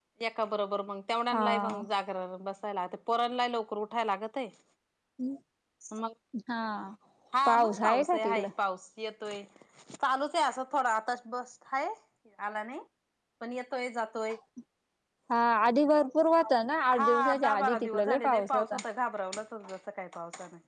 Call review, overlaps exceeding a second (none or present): present